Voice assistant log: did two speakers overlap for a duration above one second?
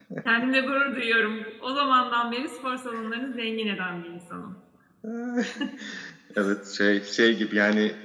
No

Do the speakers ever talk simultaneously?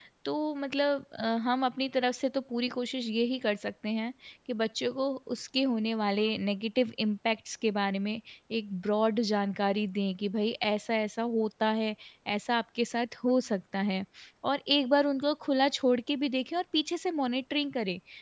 No

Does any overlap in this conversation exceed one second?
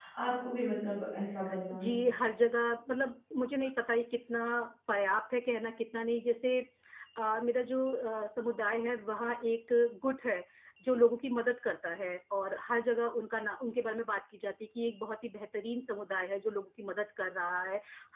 No

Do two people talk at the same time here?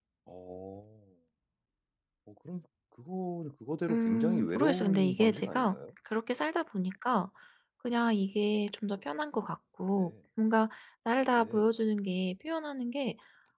Yes, from 3.9 s

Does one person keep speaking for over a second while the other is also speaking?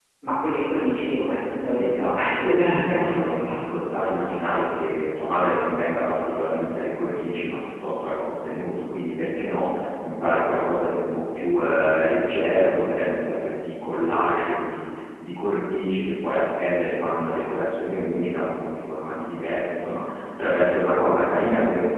Yes, from 1.8 s

